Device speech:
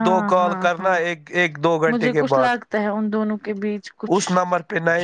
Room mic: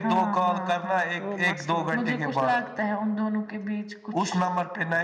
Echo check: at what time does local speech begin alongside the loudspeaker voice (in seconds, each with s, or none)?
1.2 s